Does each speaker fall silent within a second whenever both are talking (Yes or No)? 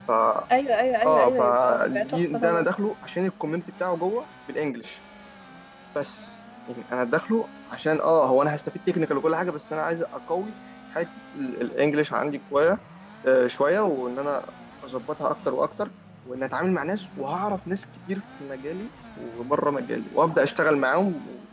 No